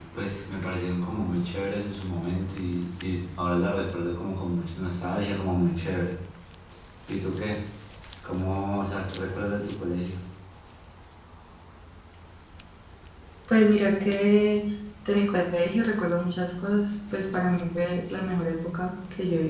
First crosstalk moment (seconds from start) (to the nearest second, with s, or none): none